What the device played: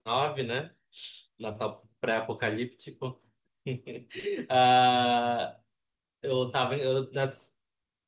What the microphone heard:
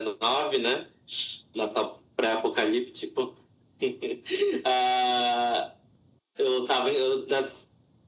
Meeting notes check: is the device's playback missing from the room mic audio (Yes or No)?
No